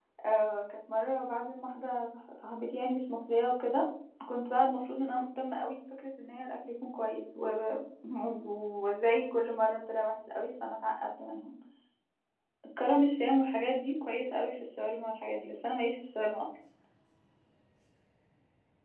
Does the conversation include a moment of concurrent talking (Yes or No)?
No